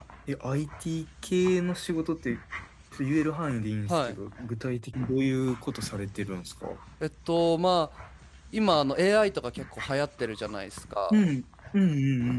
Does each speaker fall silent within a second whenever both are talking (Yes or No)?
Yes